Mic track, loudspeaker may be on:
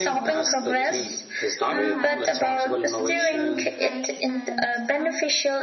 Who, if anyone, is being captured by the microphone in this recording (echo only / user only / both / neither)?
both